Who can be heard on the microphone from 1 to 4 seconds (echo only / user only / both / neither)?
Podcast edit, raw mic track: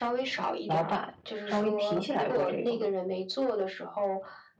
both